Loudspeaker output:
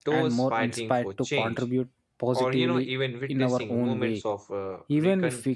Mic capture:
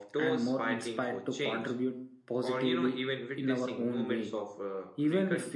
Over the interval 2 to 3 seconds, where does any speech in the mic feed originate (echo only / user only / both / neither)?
echo only